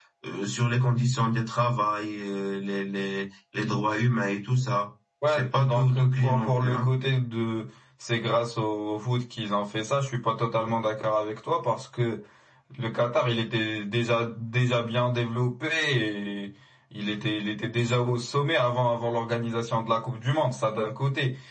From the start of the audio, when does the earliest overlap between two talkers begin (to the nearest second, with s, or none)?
5 s